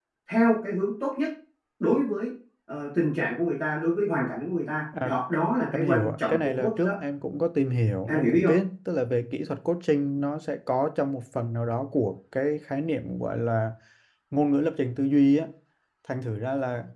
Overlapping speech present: Yes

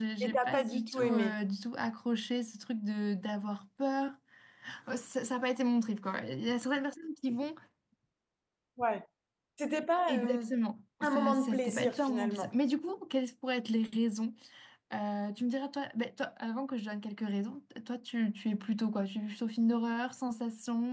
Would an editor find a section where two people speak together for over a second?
Yes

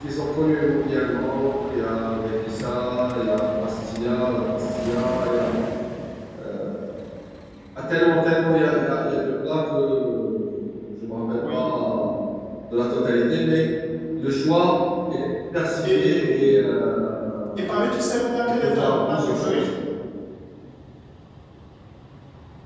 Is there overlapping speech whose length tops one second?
Yes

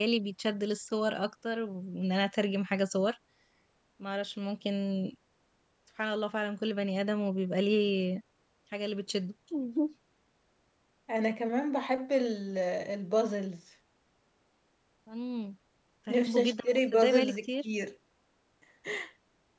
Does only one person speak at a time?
No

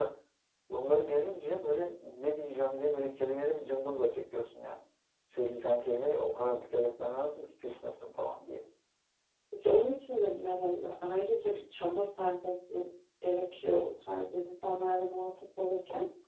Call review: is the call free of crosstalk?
Yes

